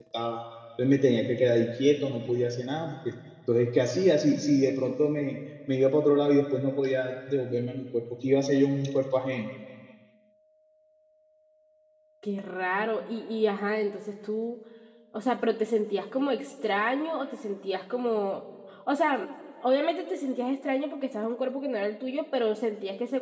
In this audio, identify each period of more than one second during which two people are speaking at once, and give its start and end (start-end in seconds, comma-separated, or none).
none